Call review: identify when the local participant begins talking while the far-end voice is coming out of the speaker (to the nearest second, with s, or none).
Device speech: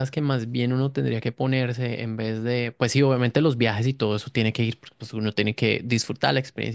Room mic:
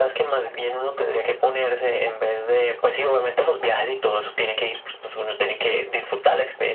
none